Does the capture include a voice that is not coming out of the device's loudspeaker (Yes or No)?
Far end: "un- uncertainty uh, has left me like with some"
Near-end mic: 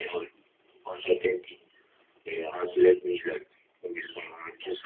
No